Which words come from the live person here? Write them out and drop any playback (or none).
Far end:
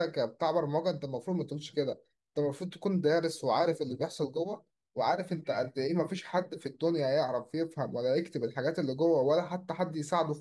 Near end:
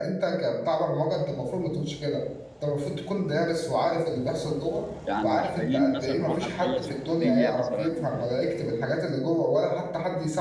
يعني محتاجين مثلا واحد خلص الكلية مثلا